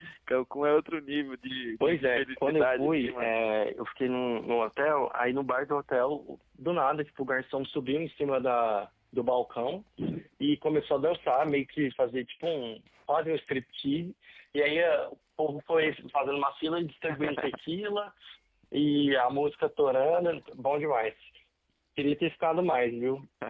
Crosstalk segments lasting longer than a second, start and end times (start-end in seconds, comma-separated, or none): 1.8-3.3